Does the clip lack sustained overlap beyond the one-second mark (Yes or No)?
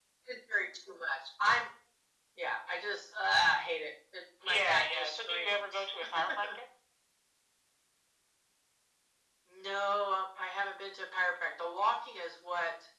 No